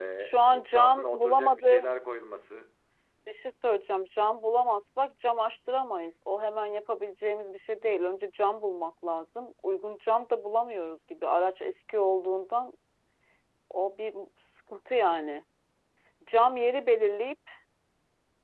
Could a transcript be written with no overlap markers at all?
No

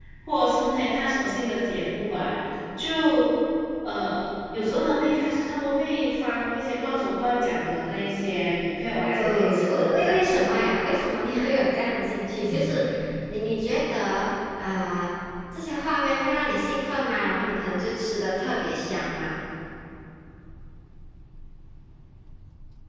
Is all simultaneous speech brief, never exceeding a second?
No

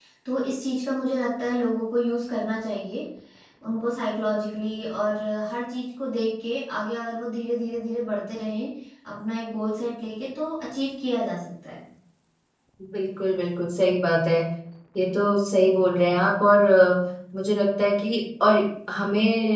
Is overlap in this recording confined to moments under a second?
Yes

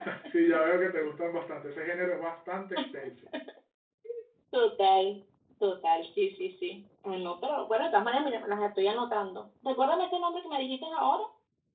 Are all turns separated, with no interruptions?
Yes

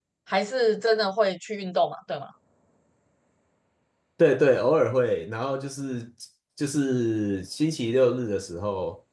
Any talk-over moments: No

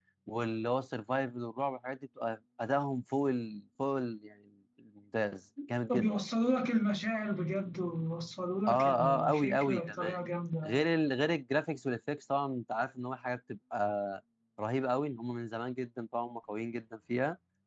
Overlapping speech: Yes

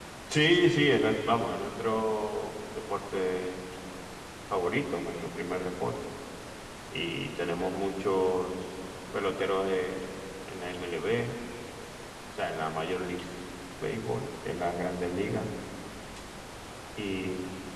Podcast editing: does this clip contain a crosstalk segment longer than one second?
No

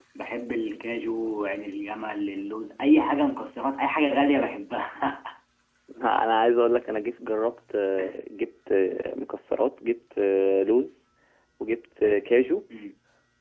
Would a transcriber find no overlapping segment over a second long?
Yes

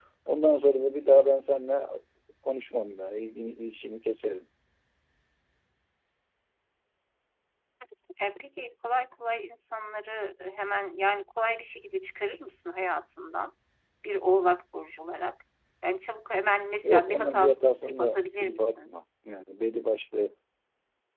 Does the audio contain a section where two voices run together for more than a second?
Yes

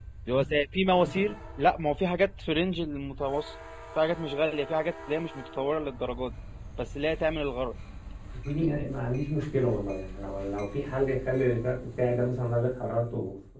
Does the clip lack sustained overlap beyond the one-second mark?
Yes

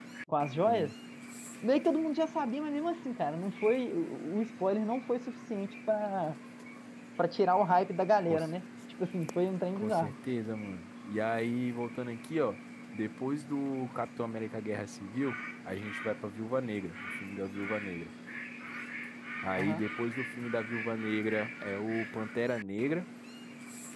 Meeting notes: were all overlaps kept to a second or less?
Yes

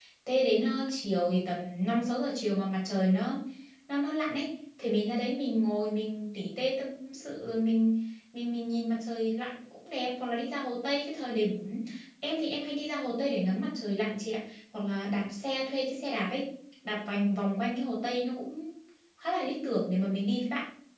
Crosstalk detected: No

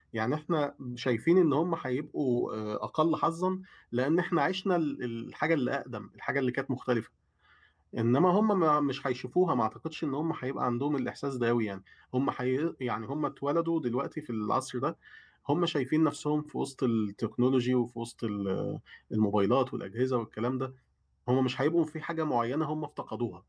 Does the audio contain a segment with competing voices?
No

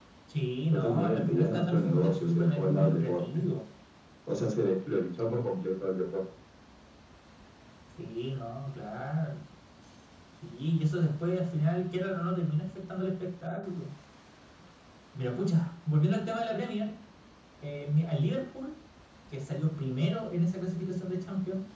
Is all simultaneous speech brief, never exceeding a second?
No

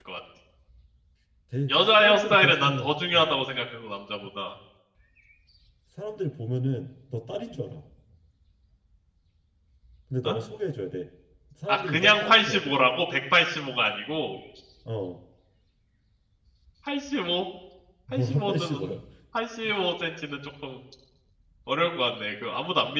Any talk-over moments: Yes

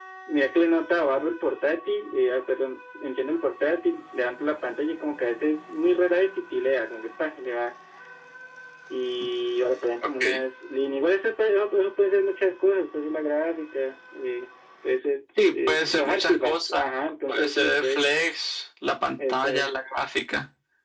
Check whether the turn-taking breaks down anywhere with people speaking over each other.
Yes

